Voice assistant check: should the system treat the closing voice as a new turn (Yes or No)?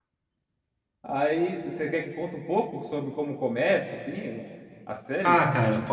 Yes